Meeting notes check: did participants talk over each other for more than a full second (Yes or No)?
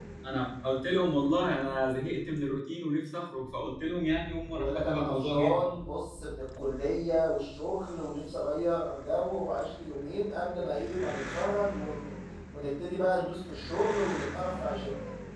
Yes